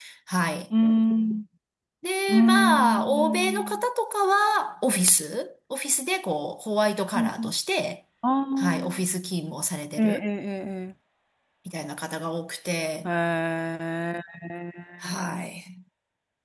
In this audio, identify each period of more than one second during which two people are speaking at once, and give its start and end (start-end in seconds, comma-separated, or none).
2.3-3.8